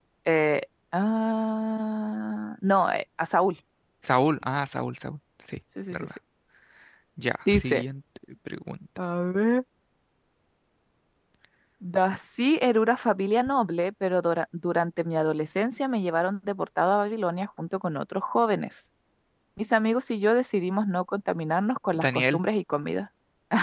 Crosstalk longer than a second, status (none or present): none